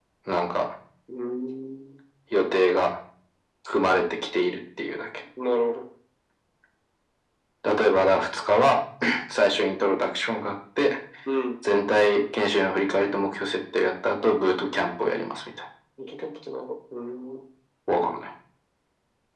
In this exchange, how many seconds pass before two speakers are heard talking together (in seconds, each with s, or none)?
none